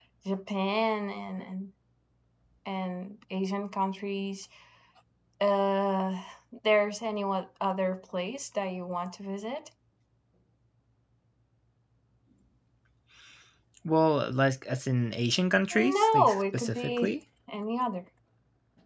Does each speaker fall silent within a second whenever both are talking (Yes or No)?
No